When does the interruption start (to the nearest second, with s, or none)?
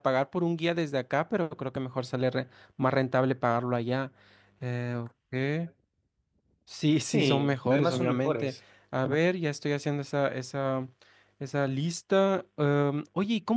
7 s